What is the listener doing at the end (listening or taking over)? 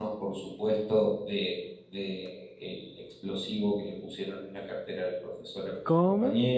taking over